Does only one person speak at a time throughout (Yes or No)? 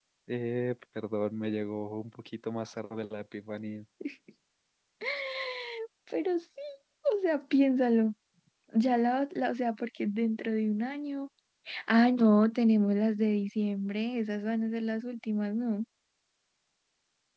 Yes